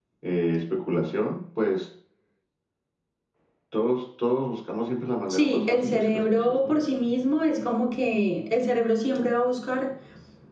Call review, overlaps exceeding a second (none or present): present